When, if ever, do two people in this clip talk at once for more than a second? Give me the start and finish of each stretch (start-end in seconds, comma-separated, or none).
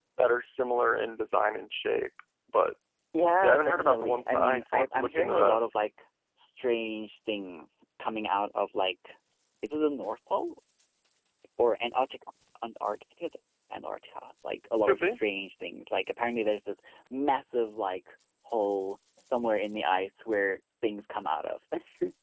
3.4-5.6